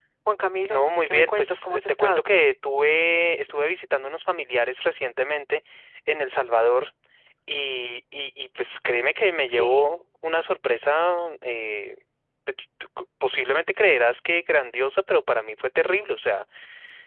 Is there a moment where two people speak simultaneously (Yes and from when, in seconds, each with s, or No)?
Yes, from 0.7 s